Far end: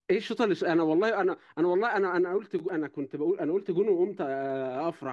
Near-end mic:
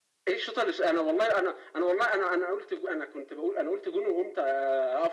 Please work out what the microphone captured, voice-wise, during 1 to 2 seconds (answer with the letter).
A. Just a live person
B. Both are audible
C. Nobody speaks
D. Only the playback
D